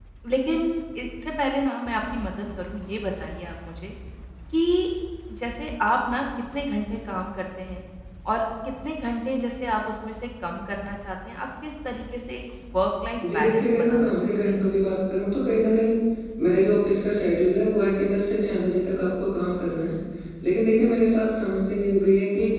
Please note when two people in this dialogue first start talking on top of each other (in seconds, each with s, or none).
13.2 s